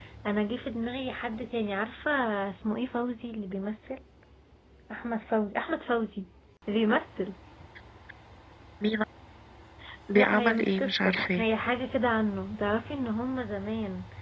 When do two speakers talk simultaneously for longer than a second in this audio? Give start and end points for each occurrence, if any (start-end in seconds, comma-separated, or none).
10.1-11.4